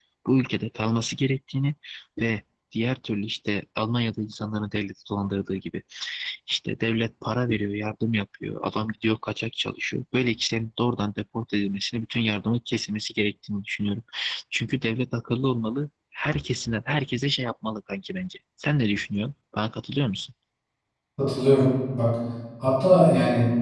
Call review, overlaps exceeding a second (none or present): none